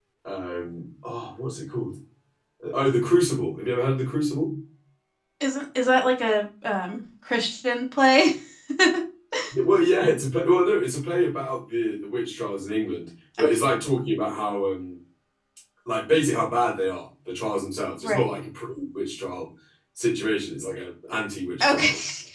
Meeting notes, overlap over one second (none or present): none